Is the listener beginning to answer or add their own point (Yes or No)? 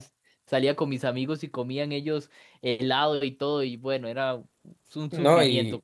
Yes